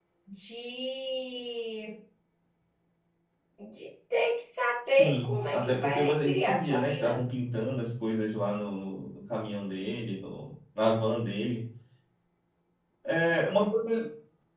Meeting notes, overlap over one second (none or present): present